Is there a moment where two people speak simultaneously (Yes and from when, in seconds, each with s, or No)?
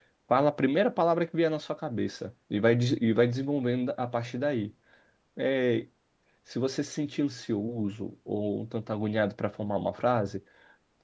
No